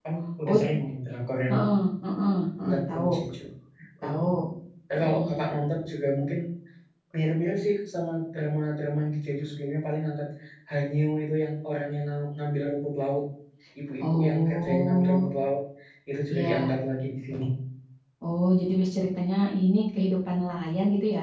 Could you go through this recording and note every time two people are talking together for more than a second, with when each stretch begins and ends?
14.0-15.3

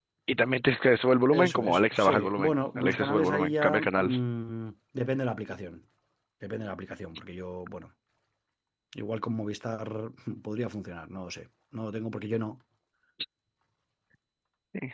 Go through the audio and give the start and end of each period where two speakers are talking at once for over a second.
1.3-4.2

